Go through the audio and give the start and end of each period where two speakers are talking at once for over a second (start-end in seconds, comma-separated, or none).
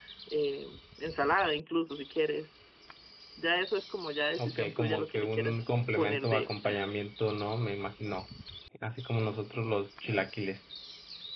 4.4-6.8